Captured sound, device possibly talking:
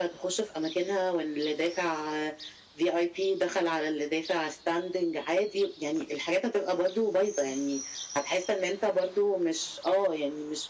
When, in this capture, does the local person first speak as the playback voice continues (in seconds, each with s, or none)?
none